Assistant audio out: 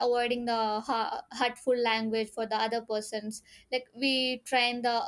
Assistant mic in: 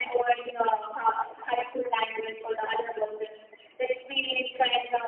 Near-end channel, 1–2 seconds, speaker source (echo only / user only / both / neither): echo only